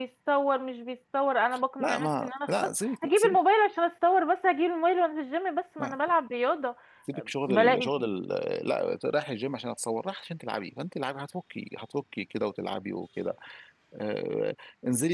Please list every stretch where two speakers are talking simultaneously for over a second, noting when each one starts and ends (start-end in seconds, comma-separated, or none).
1.8-3.4